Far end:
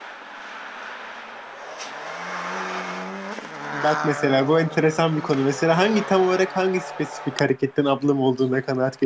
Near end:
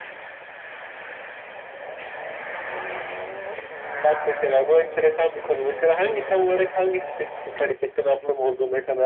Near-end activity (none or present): none